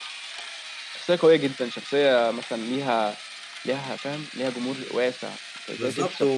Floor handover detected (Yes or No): Yes